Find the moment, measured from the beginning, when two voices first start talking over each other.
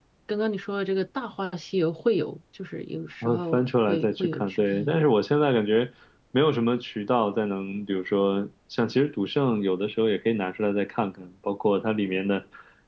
3.2 s

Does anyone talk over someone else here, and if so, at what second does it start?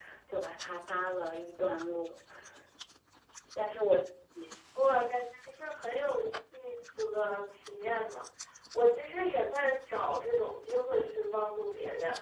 none

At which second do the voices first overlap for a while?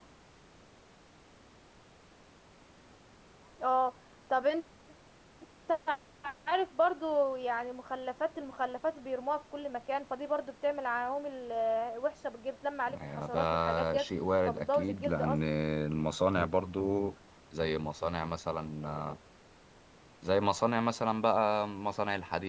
12.9 s

